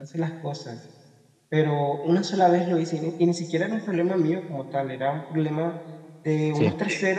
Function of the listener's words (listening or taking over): listening